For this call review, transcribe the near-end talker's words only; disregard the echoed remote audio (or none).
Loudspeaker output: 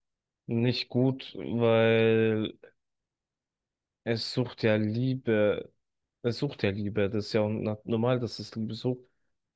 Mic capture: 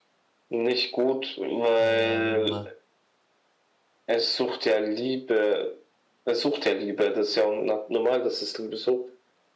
Ähm,